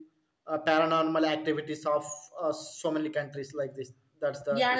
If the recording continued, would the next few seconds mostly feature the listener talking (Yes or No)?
Yes